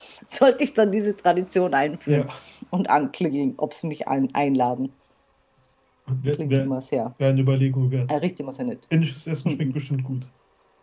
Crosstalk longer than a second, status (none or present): none